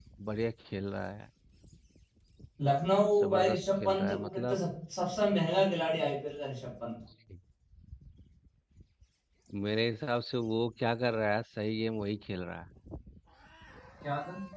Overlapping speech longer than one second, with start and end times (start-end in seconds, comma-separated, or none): 3.2-4.6